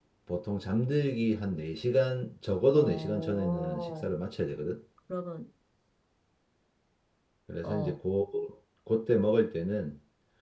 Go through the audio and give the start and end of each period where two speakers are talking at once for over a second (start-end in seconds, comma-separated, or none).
2.8-4.1